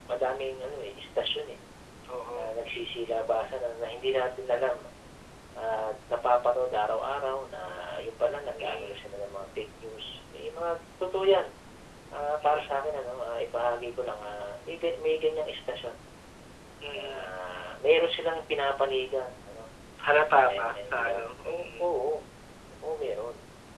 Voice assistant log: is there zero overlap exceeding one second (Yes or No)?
No